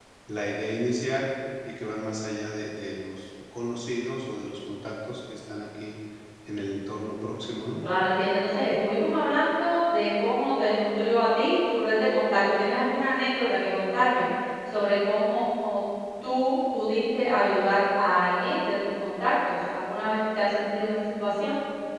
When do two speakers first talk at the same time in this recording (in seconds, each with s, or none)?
none